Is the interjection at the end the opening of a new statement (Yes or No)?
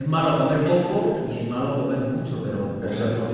No